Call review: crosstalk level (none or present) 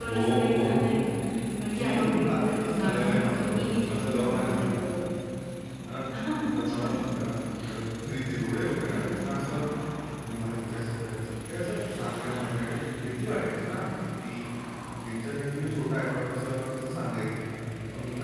present